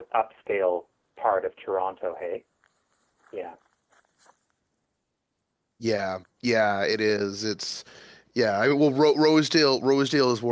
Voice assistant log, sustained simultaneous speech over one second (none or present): none